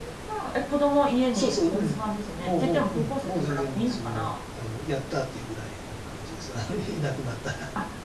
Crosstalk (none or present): present